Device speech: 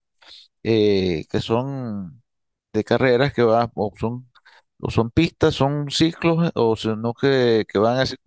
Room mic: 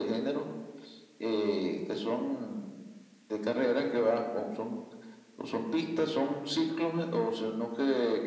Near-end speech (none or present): none